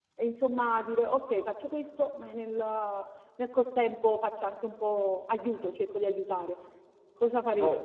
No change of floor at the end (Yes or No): No